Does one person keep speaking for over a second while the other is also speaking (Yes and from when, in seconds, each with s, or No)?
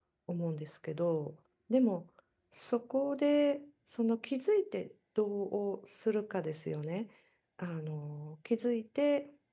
No